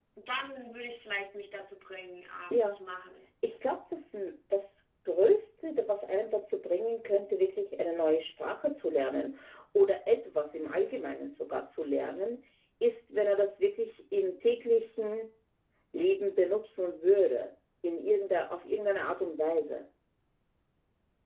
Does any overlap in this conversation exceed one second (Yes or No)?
No